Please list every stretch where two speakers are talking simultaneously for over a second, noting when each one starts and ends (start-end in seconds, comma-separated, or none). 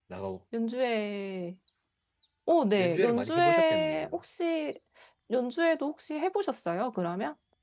2.8-4.1